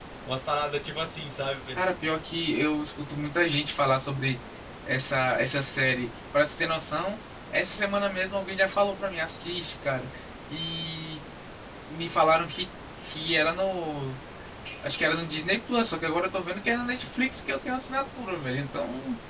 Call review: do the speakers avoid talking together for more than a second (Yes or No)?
Yes